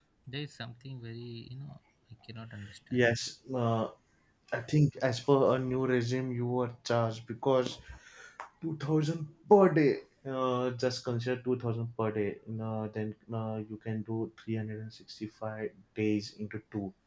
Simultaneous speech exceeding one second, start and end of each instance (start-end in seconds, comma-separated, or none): none